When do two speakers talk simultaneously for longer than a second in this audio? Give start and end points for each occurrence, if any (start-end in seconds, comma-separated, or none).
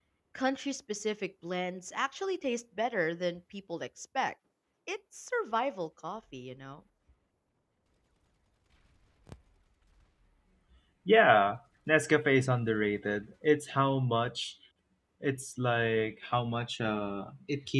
none